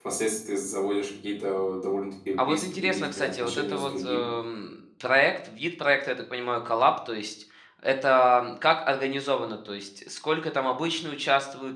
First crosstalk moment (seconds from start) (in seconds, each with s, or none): 2.4 s